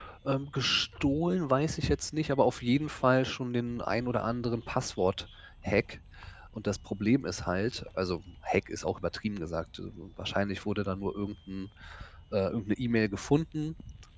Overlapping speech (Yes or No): No